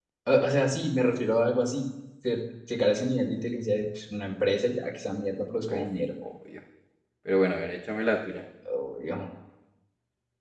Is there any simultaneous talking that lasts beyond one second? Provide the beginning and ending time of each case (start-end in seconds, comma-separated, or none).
none